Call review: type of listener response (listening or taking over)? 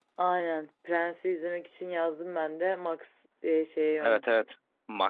taking over